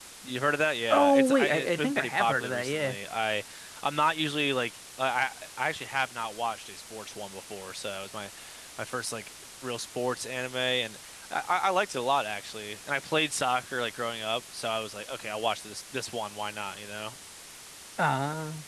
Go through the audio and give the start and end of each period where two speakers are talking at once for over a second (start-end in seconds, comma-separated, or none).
0.9-3.0